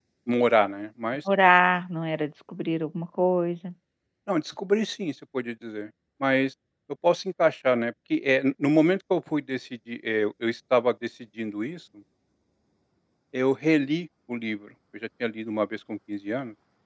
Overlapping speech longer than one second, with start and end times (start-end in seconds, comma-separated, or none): none